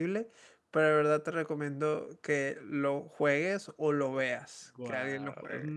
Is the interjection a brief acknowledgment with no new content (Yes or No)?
No